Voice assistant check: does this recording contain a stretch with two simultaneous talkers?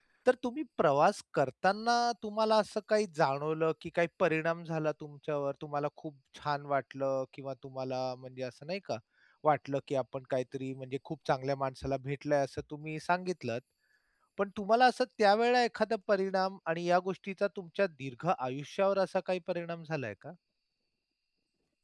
No

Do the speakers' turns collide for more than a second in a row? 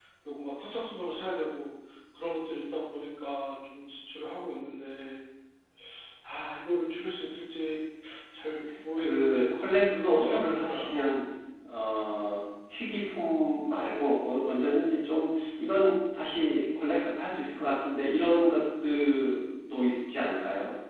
Yes, from 9.0 s

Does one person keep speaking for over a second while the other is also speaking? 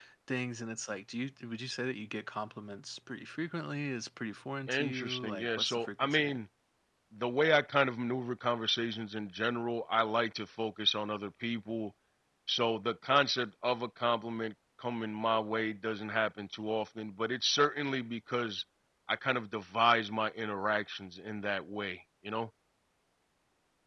Yes, from 4.7 s

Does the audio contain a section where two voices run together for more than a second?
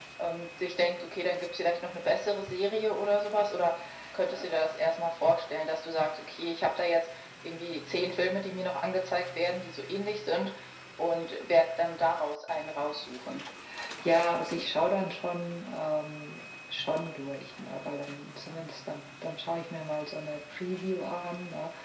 No

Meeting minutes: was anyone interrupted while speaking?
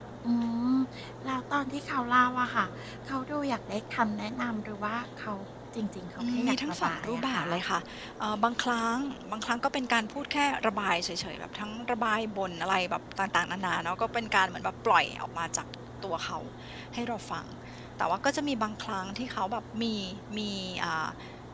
Yes, from 6.2 s

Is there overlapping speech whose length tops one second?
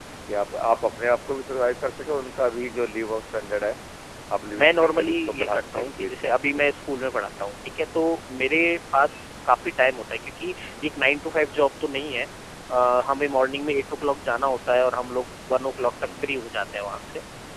Yes, from 4.5 s

